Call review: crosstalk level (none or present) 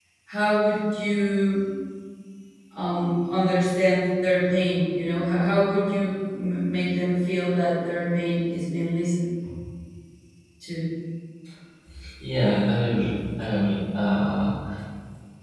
none